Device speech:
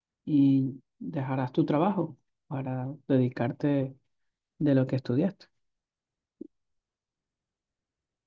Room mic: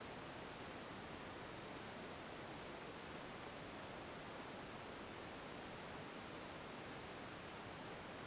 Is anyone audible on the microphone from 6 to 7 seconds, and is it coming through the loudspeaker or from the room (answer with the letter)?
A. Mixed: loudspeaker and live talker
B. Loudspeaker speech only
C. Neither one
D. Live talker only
C